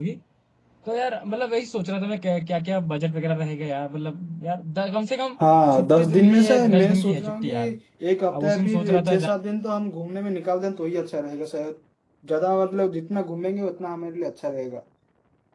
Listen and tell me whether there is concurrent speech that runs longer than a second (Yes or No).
Yes